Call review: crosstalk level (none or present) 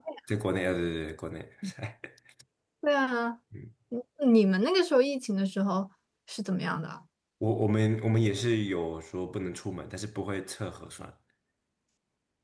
none